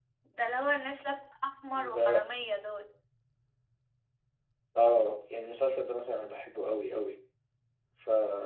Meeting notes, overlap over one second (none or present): none